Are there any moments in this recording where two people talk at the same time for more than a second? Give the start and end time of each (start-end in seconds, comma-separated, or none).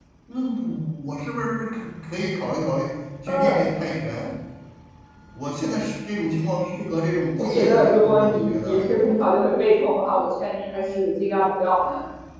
7.4-8.8